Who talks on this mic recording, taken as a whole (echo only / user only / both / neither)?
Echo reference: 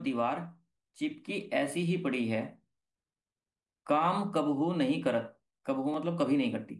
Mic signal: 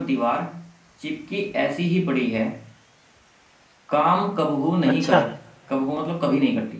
both